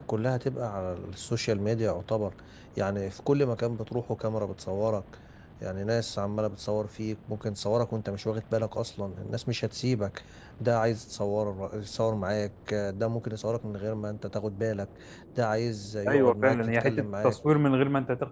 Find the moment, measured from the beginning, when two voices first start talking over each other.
16.1 s

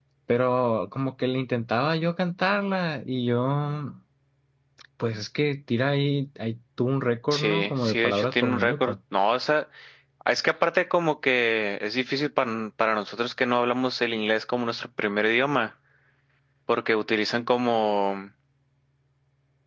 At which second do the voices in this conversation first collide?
7.3 s

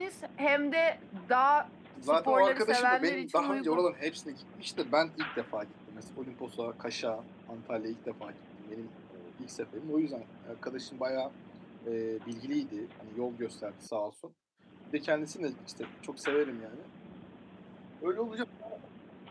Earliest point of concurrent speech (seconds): 2.2 s

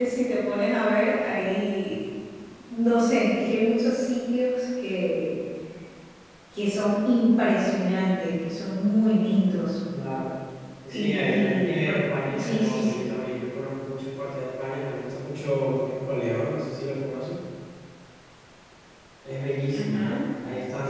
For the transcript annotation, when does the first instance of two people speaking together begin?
10.9 s

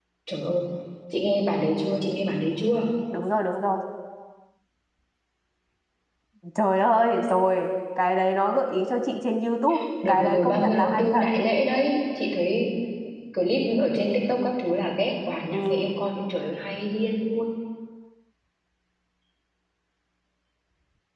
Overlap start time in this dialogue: 10.1 s

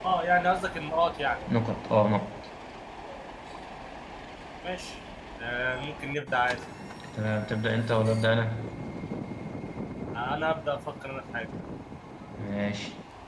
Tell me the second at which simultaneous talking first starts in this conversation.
none

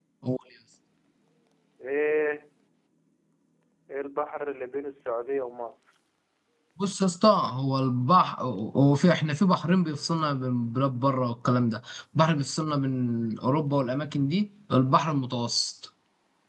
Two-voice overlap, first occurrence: none

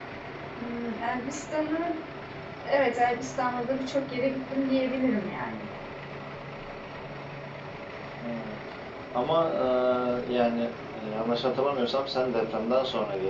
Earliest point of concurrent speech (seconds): none

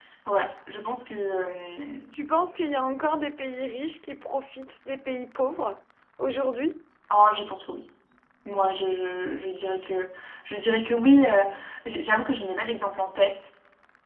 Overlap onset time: none

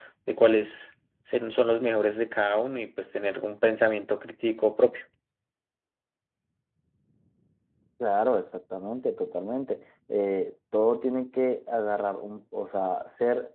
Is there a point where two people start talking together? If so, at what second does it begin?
none

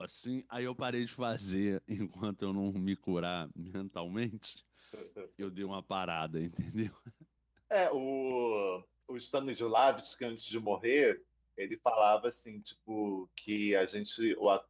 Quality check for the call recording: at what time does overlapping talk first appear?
none

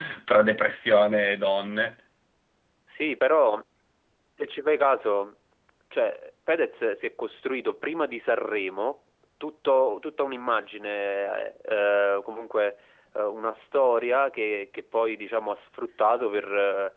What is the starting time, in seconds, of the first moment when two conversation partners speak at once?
none

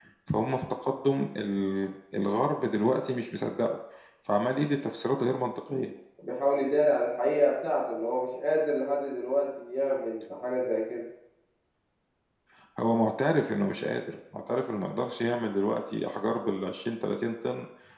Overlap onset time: none

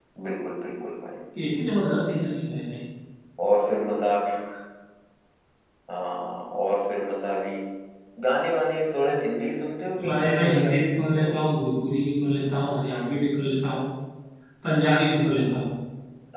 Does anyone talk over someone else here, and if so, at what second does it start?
10.0 s

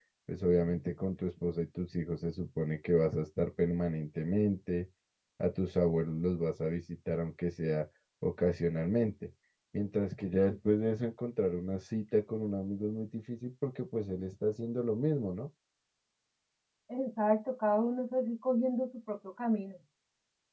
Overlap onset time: none

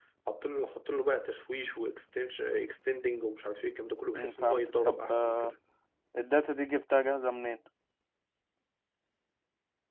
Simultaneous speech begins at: 4.1 s

